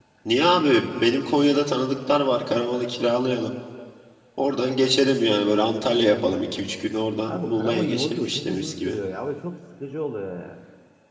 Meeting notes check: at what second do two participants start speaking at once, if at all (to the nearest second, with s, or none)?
7 s